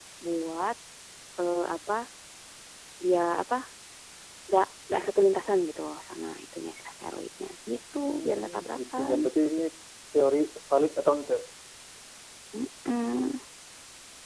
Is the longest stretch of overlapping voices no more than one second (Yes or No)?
No